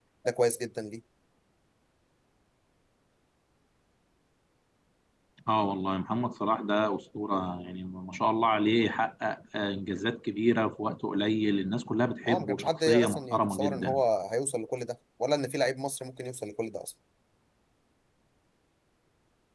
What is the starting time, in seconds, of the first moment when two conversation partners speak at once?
12 s

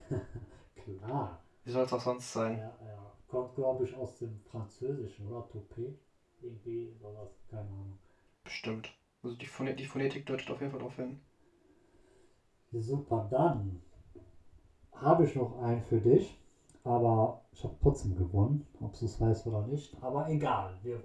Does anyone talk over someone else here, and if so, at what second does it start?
none

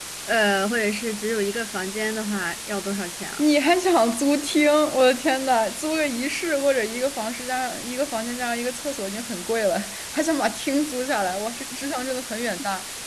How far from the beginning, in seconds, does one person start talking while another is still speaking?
none

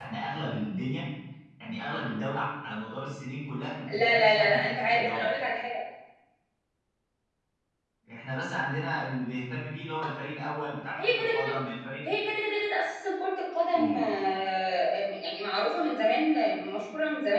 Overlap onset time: 4 s

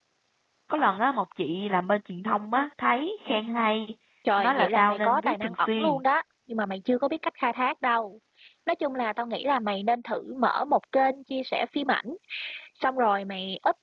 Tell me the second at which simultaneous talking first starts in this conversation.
4 s

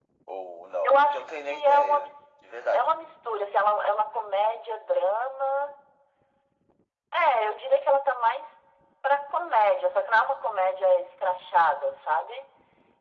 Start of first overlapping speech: 1 s

